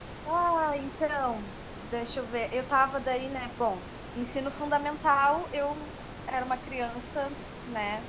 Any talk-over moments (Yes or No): No